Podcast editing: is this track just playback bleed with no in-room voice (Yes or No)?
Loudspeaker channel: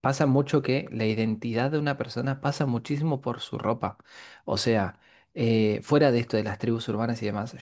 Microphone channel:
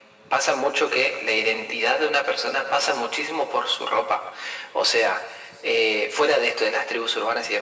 Yes